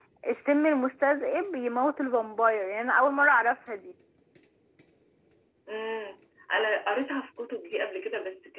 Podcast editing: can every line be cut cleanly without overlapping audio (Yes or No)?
Yes